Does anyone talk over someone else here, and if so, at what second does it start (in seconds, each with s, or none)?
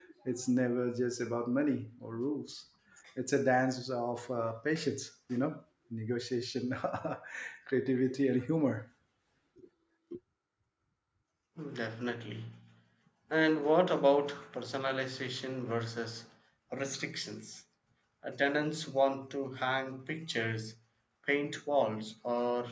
none